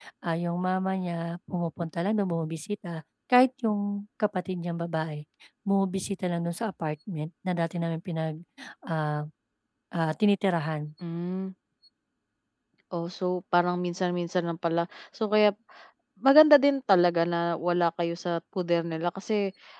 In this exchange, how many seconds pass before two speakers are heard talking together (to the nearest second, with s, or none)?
none